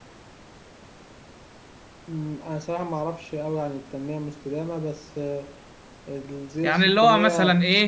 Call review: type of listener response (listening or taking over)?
taking over